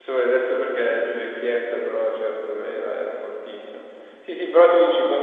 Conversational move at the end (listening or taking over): listening